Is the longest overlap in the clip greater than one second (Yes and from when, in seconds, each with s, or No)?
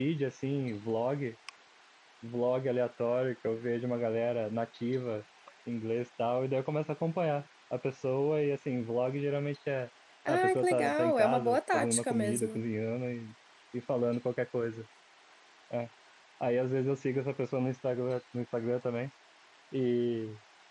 Yes, from 10.3 s